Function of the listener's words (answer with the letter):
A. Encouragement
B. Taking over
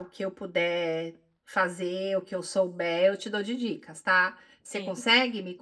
A